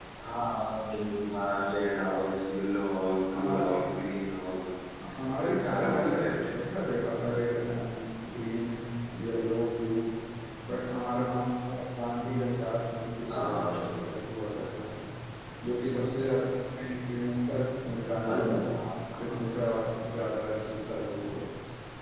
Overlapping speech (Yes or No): Yes